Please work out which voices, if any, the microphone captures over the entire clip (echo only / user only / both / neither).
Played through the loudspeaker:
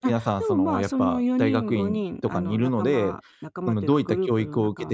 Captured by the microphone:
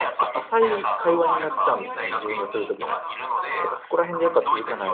both